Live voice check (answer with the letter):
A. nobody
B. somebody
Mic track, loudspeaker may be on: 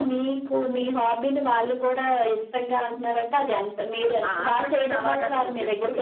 B